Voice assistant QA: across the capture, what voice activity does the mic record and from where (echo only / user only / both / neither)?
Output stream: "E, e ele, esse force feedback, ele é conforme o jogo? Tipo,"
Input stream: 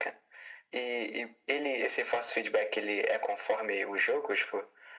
echo only